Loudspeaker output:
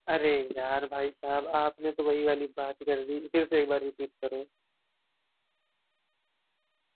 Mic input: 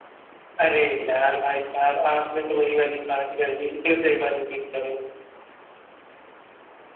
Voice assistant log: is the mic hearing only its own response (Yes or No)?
Yes